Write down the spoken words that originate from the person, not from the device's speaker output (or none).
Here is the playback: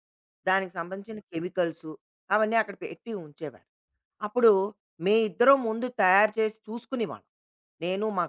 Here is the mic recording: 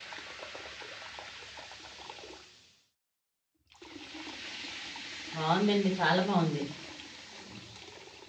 బావుందండి. చాలా బావుంది.